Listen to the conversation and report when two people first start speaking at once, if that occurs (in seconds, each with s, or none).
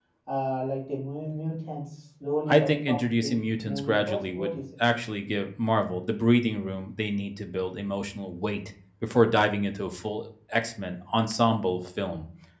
2.5 s